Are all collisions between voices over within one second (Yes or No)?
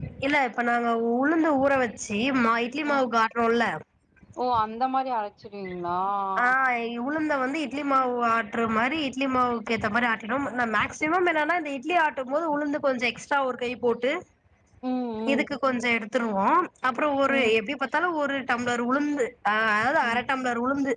Yes